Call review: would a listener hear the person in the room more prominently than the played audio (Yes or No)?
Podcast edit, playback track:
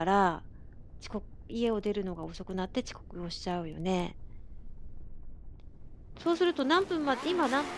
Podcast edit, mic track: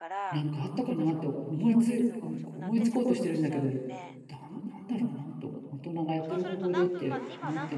Yes